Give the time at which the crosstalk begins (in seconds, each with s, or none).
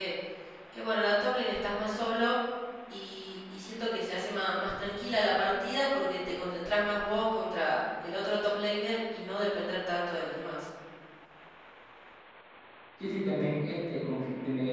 none